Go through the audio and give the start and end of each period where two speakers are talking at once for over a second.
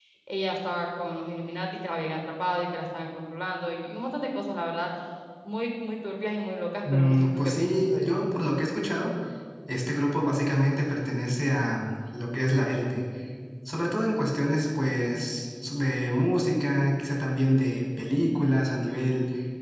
6.9-8.2

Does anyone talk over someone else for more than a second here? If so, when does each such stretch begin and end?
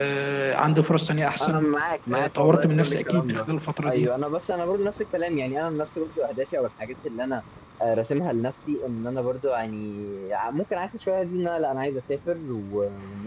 2.1-3.5

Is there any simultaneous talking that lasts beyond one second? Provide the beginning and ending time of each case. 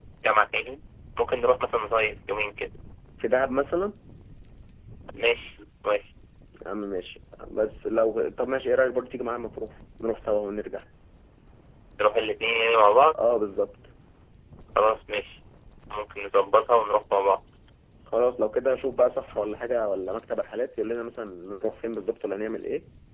none

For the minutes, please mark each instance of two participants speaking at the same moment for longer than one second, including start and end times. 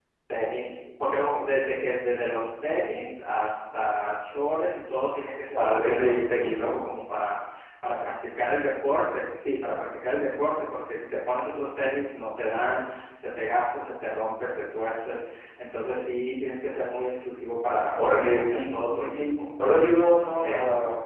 5.6-6.8, 18.0-19.2

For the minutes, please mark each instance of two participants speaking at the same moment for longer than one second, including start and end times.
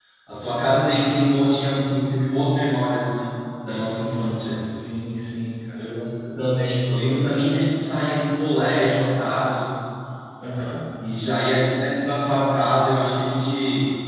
none

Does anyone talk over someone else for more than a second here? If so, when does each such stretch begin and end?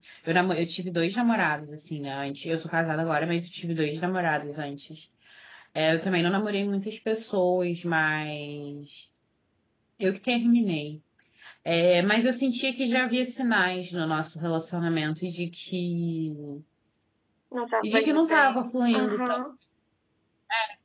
17.8-19.2

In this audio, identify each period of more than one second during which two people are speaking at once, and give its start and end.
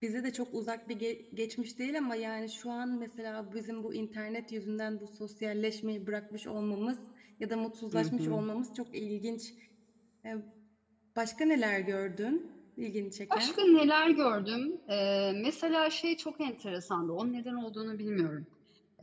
none

